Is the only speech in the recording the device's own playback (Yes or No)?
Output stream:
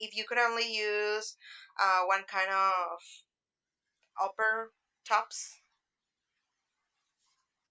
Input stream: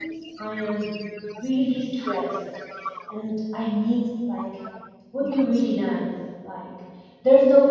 No